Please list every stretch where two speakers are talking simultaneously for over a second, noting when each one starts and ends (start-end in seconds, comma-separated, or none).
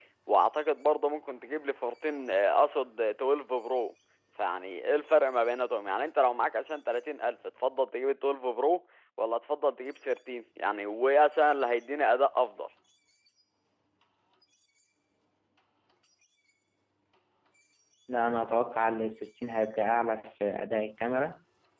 none